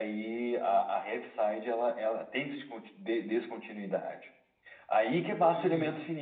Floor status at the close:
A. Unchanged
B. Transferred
A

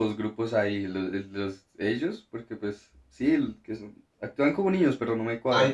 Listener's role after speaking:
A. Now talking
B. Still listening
A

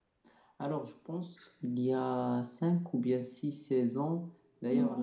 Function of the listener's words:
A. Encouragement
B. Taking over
A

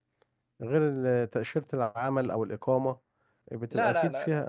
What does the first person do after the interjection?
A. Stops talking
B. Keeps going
A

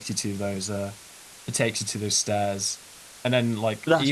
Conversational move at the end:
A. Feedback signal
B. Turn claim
A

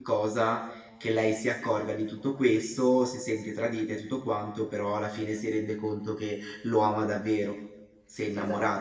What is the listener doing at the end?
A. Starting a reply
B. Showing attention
A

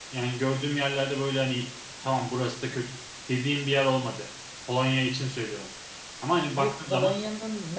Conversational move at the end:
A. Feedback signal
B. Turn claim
B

